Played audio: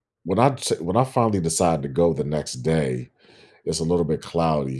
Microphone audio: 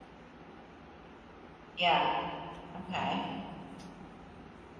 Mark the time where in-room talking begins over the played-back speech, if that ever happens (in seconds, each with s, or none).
1.8 s